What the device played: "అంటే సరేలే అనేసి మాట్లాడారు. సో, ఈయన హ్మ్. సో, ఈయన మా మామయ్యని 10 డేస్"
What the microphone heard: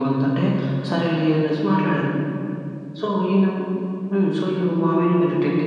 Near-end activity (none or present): none